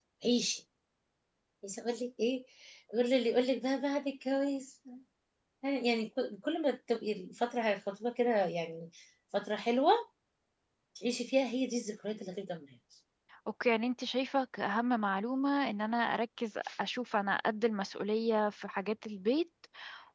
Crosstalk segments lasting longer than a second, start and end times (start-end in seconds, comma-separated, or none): none